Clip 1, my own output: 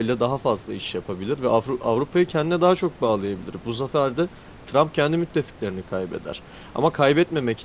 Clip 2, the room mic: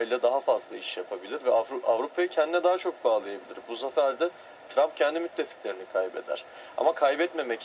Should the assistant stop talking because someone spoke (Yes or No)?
No